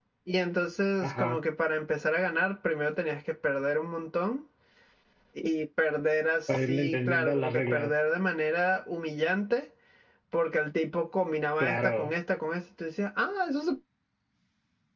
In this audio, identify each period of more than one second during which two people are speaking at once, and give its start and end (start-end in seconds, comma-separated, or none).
6.5-7.9